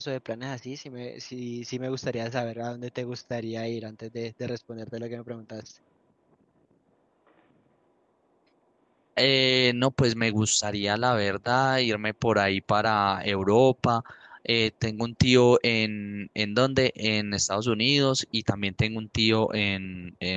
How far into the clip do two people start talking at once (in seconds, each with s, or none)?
none